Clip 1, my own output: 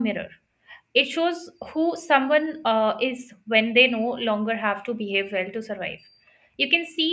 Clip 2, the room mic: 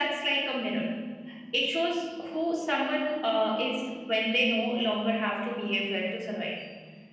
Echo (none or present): present